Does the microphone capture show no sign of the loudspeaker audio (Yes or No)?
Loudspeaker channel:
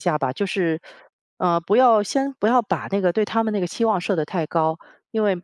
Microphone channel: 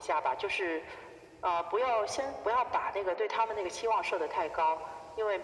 No